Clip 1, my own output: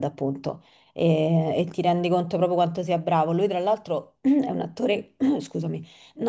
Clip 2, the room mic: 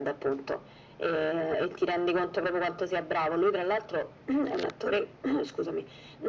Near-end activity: none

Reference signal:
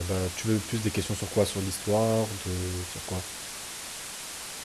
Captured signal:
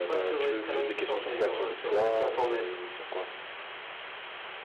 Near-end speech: present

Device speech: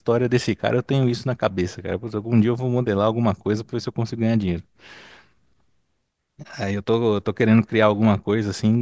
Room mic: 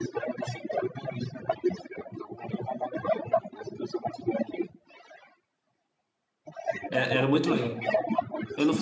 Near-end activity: present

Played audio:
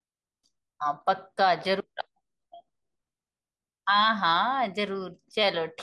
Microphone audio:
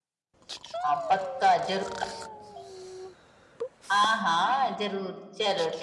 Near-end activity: none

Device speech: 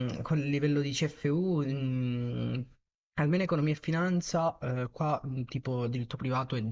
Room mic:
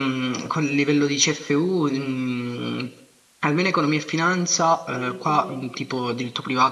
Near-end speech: present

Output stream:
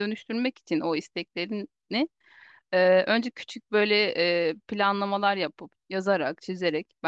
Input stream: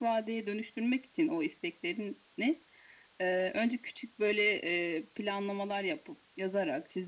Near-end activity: none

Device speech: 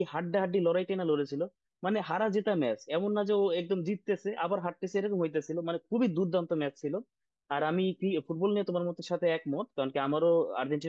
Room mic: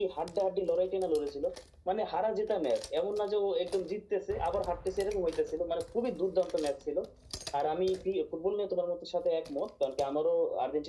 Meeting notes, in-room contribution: none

